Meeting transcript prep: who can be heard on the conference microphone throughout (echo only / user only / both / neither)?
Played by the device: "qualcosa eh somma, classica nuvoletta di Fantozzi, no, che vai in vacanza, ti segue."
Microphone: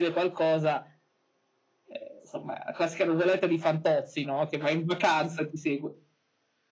echo only